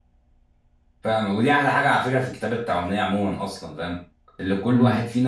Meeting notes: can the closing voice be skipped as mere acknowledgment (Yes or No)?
Yes